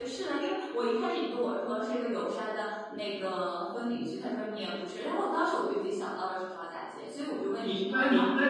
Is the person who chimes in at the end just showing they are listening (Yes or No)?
No